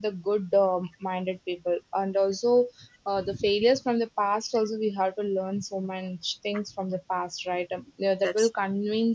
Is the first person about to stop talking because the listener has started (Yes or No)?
No